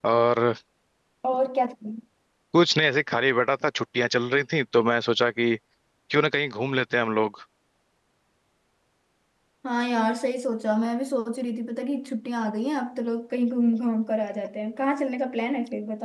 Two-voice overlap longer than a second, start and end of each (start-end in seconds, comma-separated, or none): none